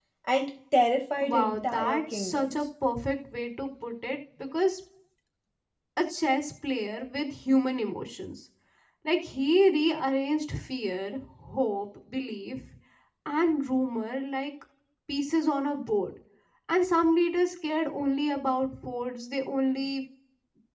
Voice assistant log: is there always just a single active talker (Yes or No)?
No